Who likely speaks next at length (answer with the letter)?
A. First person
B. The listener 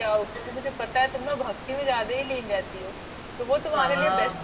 A